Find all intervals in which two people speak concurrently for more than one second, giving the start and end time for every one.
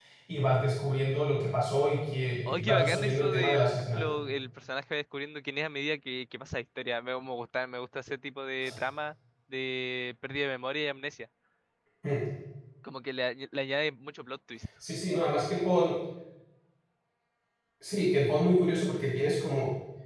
2.5-4.0

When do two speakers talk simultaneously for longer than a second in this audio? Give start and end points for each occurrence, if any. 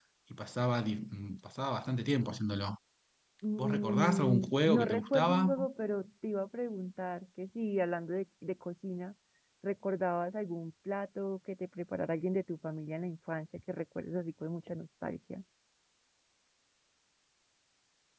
3.6-5.5

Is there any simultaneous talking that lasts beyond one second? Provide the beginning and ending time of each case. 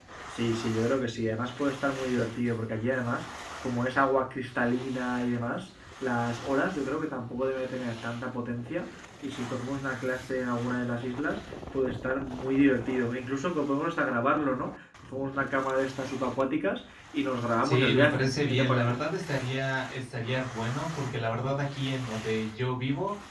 17.6-19.0

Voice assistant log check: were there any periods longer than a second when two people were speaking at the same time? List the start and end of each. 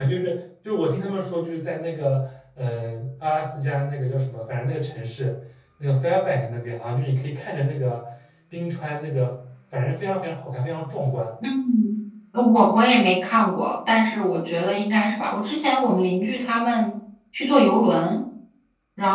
none

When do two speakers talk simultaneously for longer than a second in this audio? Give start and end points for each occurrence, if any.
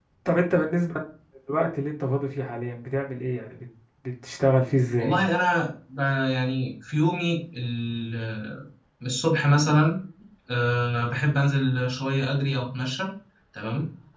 none

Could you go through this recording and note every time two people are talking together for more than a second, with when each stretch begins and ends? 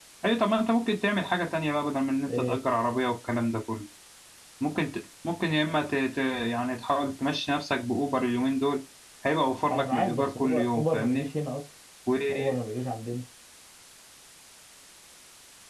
9.7-11.3

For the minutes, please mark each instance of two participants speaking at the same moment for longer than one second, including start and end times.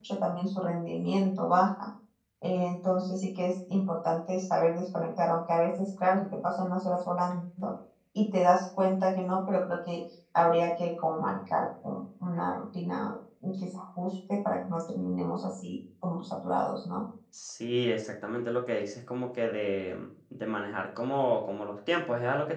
none

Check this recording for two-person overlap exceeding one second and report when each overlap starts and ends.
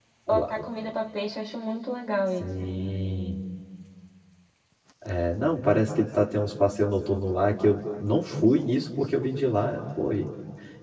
none

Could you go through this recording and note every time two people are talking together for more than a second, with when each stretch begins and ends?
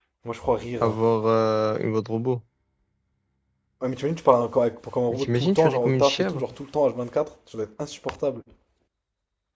5.1-6.4

